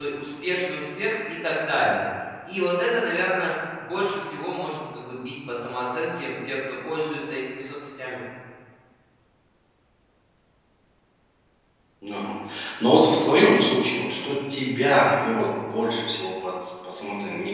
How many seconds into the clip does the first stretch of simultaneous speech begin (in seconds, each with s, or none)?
none